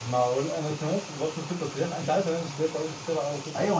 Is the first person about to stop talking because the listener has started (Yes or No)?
Yes